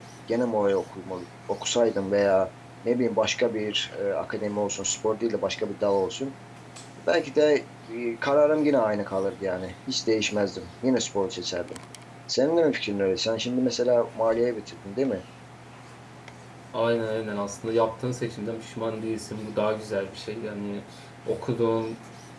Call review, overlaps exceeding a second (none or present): none